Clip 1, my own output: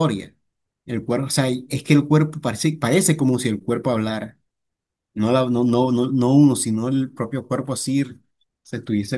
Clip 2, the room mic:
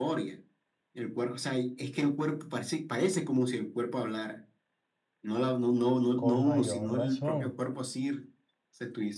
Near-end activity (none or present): present